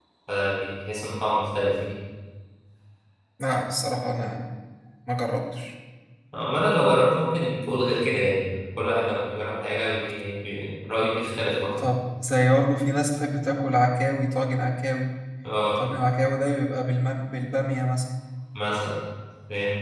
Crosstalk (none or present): none